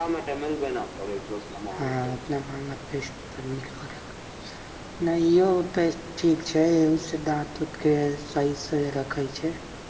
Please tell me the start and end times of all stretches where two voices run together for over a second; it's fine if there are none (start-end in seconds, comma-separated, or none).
none